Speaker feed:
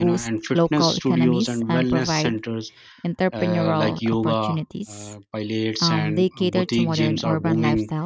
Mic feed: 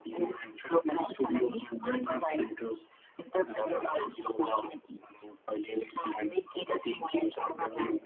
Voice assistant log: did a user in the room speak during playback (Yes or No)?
No